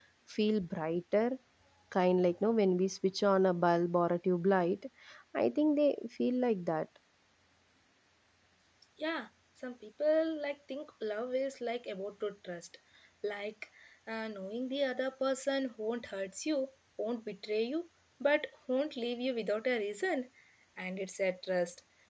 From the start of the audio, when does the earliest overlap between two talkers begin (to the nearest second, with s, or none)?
none